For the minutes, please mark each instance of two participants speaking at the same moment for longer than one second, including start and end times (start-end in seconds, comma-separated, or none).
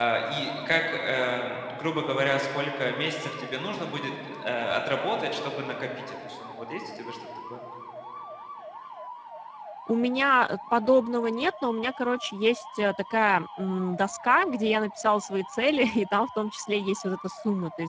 none